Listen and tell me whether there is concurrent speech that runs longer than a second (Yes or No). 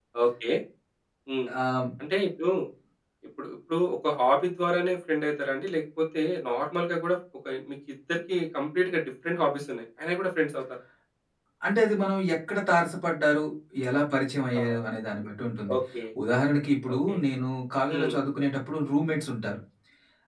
No